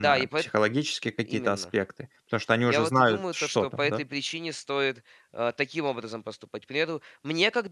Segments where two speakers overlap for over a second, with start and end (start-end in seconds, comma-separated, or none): 2.6-4.0